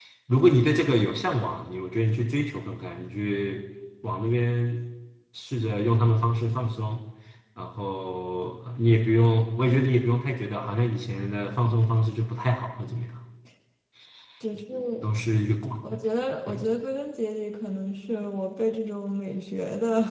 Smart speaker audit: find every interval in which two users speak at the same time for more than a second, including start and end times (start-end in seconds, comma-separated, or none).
none